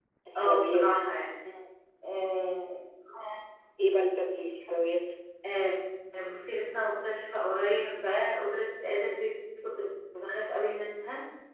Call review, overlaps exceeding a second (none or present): none